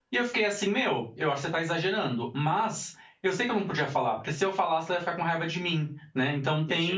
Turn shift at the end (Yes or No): No